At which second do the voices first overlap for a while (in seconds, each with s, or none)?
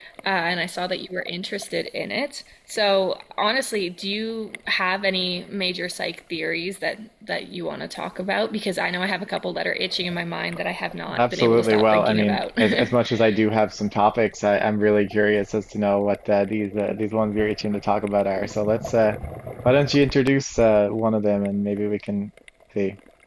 11.1 s